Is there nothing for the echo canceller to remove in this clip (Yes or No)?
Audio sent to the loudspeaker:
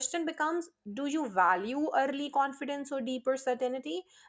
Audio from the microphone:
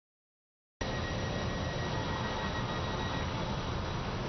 Yes